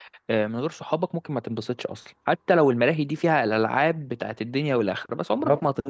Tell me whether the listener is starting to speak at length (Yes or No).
No